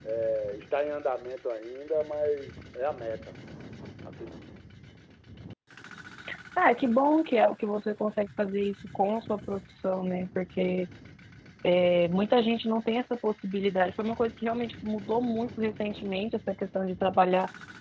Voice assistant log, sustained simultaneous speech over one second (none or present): none